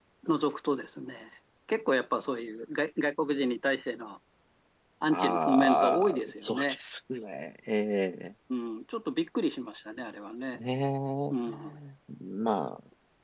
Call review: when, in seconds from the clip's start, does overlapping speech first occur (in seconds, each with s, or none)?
5.1 s